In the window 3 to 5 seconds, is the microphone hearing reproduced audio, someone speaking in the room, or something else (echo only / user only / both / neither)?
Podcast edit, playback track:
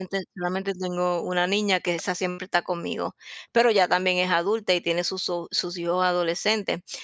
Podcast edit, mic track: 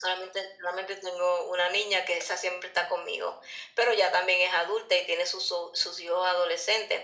echo only